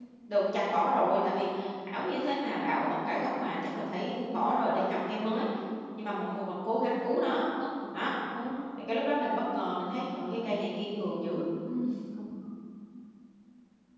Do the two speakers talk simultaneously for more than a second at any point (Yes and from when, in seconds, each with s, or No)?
No